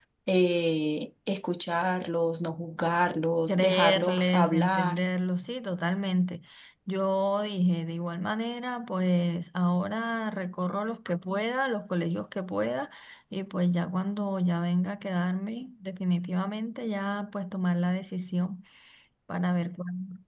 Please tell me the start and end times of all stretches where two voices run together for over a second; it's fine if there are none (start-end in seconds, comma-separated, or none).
3.5-5.1